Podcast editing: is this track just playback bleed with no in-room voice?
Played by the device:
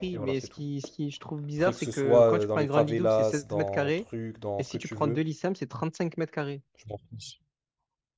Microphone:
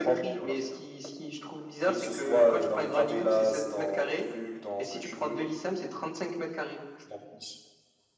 Yes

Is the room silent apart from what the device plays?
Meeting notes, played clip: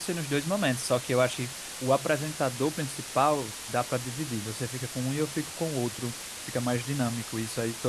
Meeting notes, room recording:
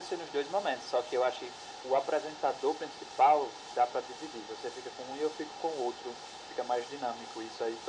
Yes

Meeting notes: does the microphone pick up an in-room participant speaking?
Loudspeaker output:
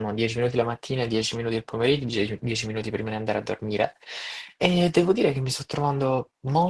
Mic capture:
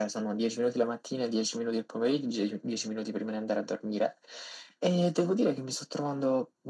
No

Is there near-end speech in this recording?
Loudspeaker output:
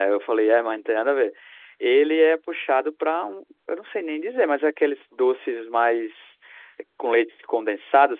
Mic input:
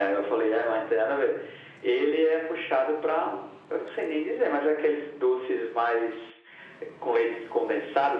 No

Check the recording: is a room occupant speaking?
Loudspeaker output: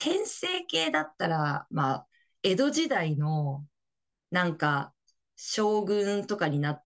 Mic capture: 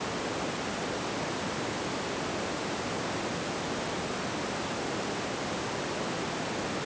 No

